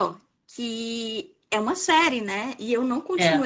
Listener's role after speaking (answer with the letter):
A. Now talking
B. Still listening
B